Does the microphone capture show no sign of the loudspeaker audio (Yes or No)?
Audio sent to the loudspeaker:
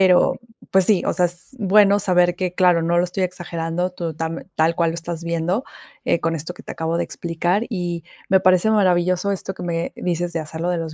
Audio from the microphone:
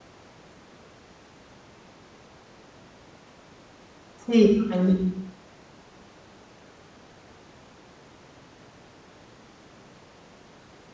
Yes